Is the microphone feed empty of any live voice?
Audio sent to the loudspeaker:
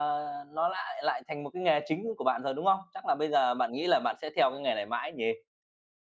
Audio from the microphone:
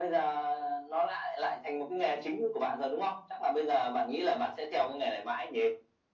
Yes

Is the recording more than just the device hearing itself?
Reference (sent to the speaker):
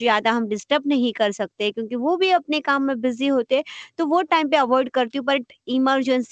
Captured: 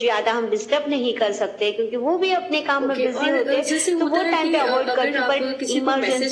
Yes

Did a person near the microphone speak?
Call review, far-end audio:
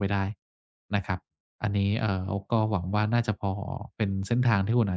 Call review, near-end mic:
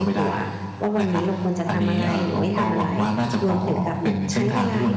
Yes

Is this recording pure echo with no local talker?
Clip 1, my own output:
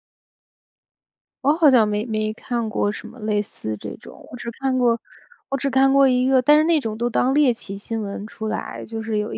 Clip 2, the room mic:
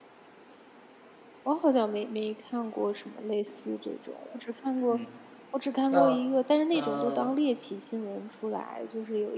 No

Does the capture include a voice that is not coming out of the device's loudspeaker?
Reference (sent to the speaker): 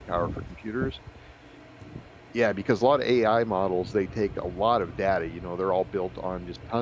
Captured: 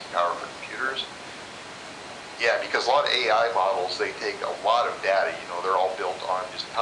No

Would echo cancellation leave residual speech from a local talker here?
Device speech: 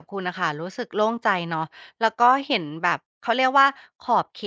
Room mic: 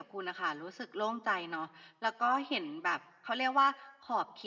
No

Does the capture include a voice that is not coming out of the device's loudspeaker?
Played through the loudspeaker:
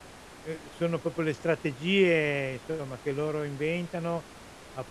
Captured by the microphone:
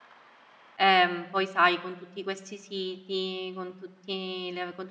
Yes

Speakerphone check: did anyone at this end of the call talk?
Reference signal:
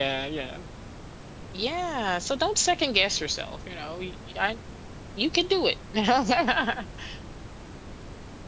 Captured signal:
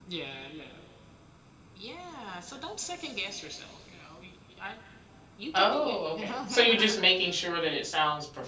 Yes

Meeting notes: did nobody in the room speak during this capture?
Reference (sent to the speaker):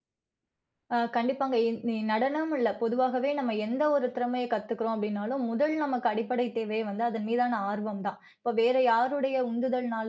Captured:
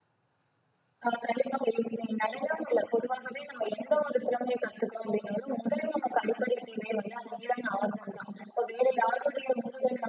Yes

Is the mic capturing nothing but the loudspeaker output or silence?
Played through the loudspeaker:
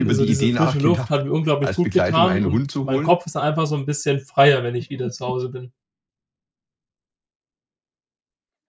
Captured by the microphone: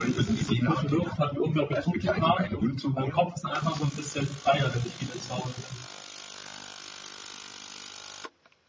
Yes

